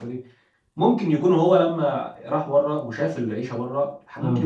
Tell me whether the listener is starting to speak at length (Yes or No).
No